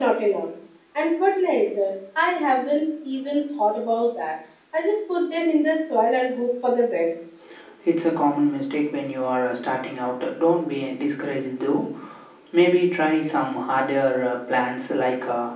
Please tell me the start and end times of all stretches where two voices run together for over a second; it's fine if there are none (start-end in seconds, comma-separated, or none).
none